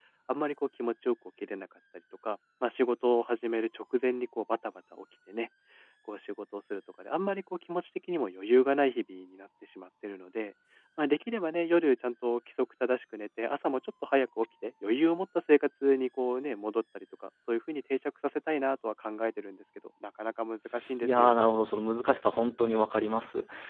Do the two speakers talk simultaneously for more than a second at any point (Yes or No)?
No